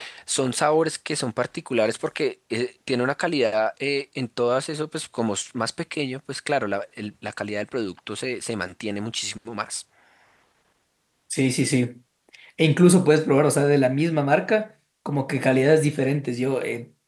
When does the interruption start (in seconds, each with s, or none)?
none